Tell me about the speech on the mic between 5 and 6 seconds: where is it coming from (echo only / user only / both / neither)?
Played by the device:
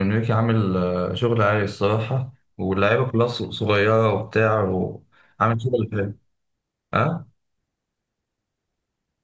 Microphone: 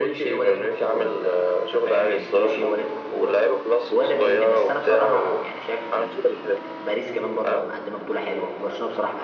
both